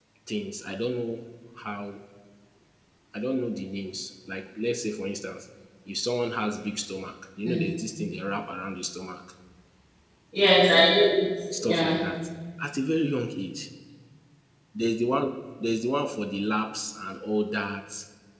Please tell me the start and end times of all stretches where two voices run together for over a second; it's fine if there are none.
none

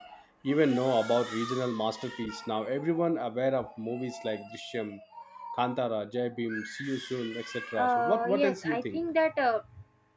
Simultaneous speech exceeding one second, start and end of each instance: 7.8-9.0

